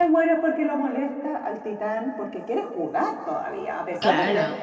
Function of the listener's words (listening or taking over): listening